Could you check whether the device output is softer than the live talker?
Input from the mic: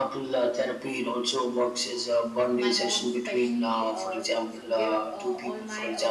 No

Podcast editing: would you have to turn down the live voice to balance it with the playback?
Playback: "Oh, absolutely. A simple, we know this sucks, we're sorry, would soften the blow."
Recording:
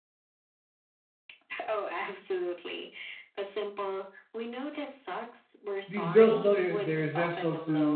Yes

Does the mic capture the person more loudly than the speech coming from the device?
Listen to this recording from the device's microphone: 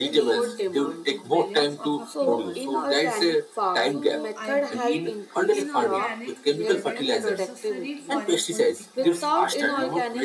No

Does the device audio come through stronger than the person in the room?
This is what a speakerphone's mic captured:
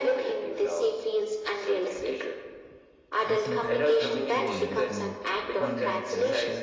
Yes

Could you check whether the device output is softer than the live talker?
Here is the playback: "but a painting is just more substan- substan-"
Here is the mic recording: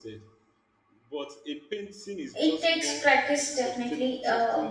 Yes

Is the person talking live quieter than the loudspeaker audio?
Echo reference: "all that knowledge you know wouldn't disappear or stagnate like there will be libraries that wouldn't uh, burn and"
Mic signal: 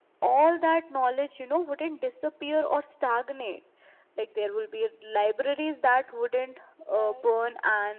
Yes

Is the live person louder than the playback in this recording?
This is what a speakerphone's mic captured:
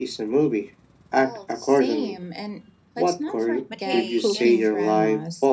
No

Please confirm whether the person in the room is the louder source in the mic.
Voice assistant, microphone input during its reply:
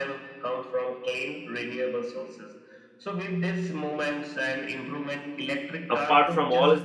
Yes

